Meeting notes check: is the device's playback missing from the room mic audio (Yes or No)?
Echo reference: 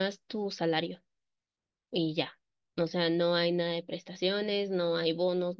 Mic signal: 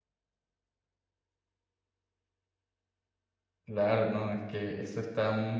Yes